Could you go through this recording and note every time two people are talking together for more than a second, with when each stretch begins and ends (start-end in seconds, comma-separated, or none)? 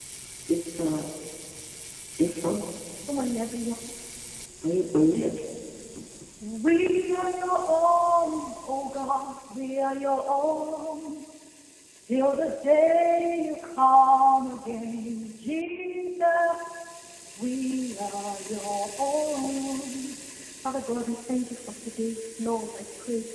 none